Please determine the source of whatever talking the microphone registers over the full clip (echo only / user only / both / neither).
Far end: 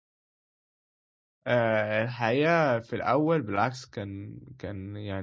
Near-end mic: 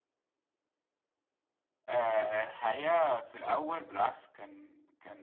echo only